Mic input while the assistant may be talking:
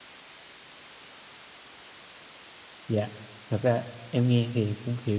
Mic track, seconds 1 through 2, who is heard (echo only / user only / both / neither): neither